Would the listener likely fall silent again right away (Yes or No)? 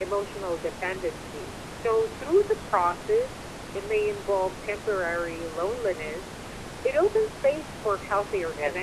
No